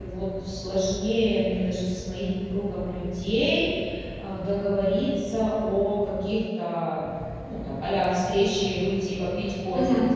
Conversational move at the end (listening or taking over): taking over